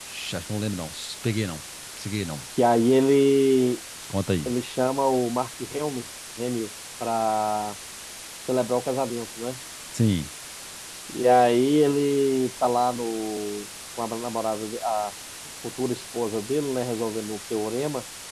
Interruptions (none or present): none